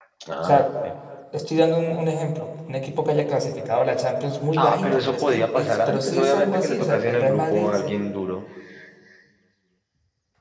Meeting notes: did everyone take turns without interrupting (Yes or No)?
No